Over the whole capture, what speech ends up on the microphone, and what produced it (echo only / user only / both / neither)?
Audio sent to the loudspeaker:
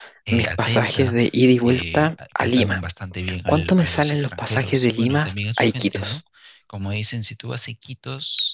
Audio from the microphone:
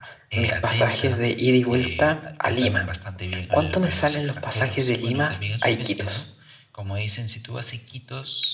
echo only